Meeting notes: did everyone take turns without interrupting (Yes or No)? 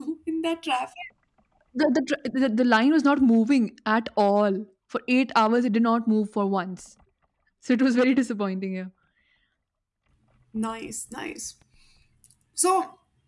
Yes